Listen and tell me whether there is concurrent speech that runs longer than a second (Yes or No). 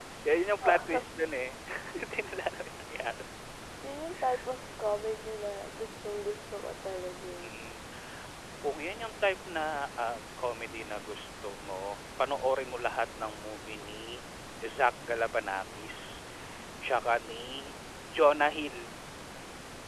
No